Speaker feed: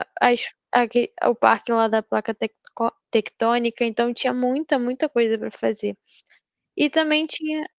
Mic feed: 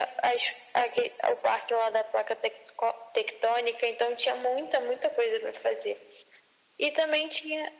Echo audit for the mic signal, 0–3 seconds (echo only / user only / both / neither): echo only